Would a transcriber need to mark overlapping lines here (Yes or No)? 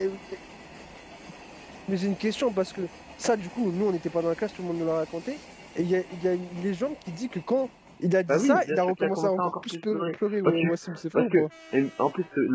Yes